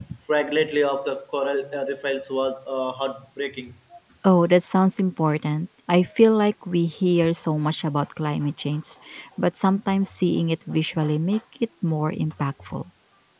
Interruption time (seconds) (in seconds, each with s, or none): none